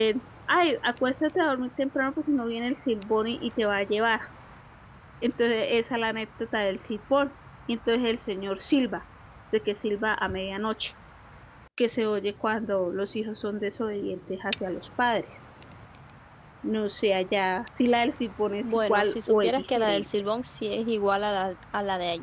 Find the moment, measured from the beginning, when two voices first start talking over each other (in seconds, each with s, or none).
18.6 s